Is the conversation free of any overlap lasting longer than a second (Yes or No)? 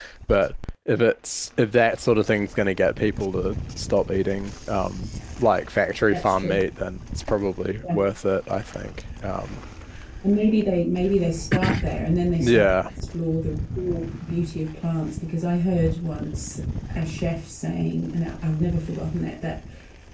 Yes